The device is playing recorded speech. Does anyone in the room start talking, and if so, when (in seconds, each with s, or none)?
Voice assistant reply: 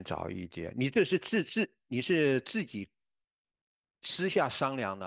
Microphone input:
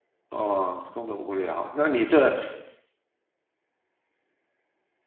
0.3 s